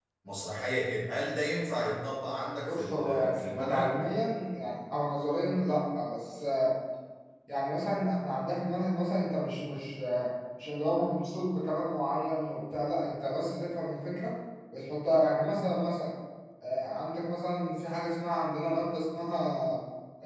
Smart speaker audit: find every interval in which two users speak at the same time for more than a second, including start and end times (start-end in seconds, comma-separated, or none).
2.7-4.0